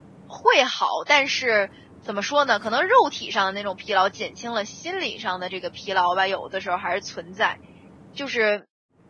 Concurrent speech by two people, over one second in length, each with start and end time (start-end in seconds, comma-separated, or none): none